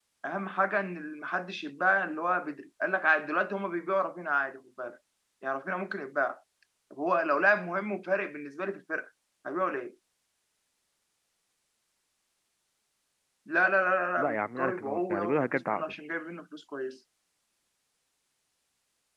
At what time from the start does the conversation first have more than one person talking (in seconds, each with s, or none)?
14.2 s